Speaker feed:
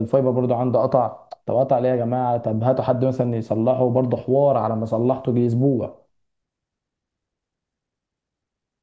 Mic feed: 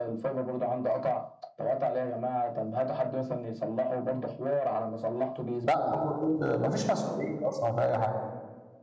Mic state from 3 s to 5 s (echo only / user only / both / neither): echo only